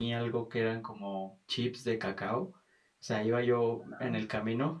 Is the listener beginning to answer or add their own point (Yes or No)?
No